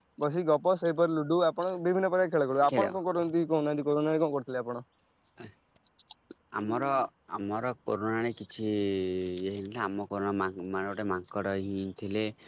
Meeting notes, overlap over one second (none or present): none